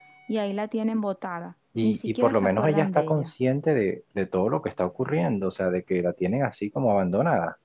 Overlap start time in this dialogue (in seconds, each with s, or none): 1.8 s